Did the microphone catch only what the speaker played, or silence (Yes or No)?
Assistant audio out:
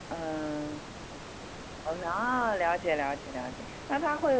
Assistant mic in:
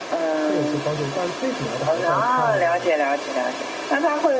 No